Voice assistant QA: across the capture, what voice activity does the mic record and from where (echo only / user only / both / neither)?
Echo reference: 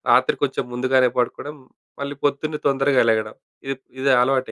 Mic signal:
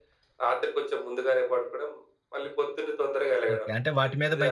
both